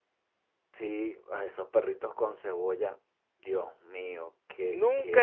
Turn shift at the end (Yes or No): Yes